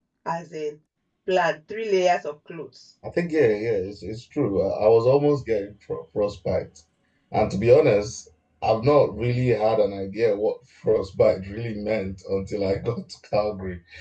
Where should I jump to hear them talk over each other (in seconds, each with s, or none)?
none